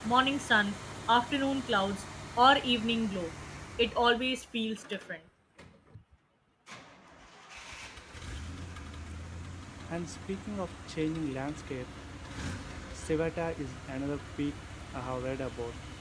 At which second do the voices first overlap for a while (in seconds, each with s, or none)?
none